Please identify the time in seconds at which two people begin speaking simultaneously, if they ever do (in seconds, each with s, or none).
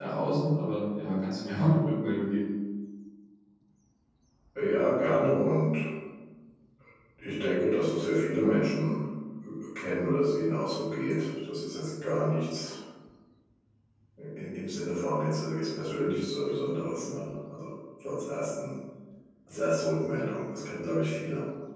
none